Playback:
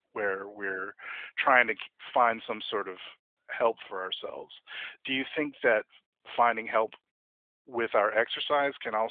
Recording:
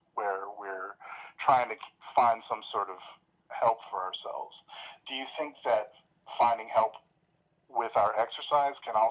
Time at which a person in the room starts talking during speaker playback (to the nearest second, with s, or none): none